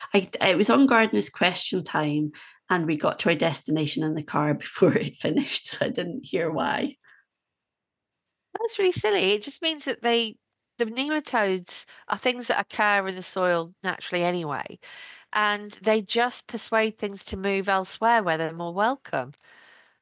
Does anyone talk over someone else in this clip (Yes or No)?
No